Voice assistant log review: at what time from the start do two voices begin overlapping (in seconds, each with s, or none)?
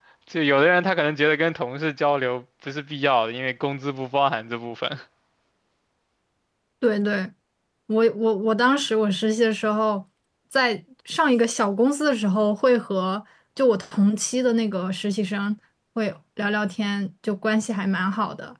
none